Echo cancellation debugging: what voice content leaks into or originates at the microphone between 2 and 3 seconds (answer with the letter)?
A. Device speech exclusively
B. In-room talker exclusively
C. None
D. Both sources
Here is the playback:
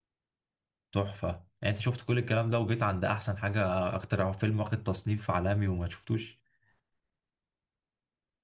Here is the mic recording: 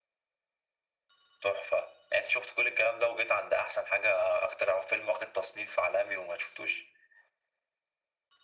A